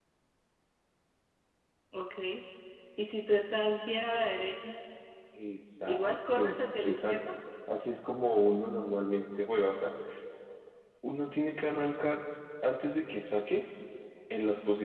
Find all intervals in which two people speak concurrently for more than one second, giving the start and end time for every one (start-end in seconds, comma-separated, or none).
5.9-7.2